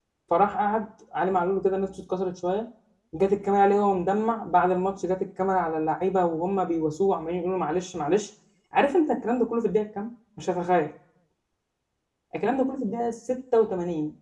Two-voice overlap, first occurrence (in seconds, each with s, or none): none